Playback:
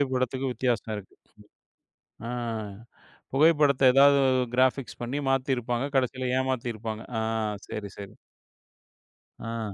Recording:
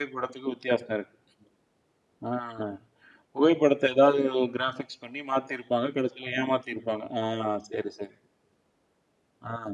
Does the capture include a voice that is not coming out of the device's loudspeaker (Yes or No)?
No